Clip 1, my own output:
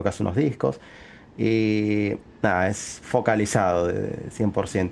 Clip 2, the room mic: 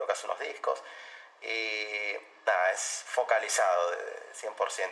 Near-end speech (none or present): none